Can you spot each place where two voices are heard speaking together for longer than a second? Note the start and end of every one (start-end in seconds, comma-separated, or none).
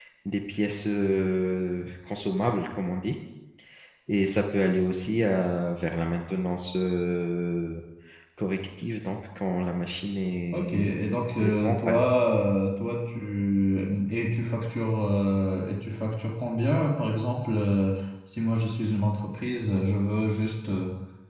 10.5-12.0